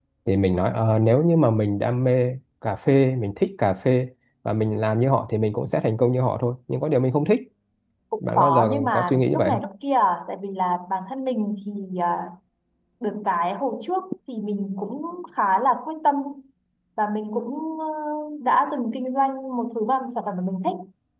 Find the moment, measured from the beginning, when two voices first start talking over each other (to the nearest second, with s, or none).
8 s